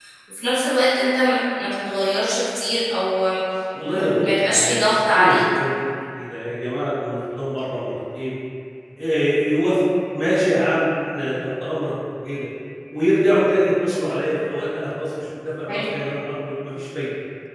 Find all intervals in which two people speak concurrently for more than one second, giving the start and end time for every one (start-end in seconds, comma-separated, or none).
3.9-5.4